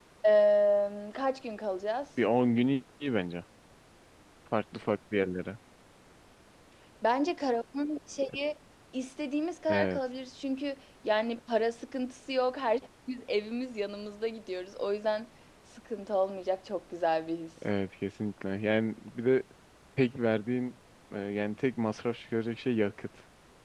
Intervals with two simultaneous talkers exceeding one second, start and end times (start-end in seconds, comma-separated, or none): none